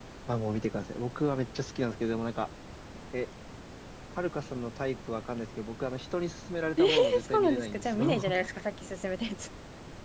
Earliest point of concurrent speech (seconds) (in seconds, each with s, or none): 6.8 s